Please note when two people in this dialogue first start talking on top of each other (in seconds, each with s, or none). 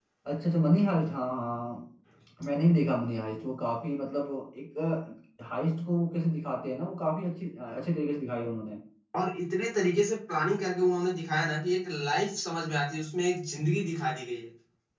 none